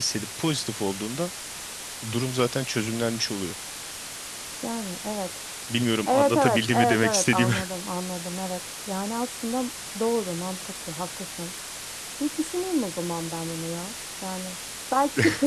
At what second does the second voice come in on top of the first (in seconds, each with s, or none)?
6.1 s